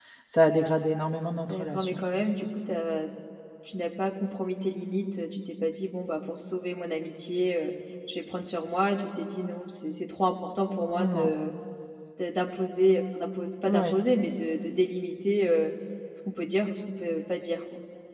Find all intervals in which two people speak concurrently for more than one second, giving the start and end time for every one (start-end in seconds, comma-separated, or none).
none